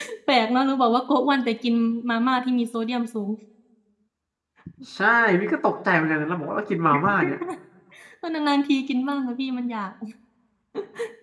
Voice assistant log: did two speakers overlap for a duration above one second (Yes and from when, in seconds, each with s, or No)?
No